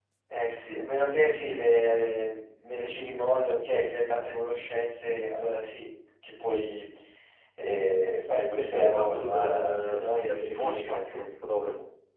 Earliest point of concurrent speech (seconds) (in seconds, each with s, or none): 8.6 s